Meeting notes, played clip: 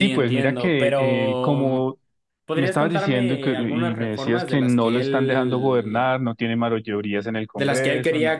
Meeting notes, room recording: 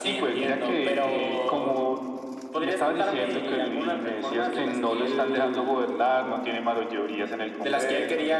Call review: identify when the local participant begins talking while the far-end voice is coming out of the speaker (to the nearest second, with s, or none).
none